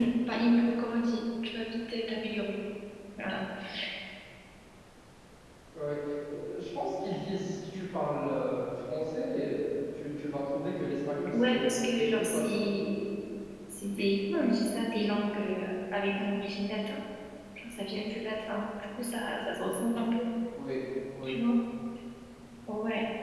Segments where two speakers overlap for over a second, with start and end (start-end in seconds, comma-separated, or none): 11.3-12.6